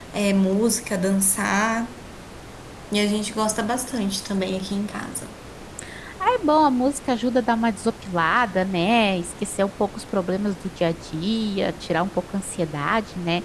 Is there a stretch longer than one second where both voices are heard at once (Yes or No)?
No